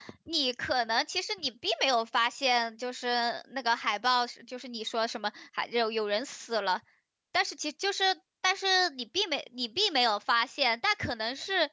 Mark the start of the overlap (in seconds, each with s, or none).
none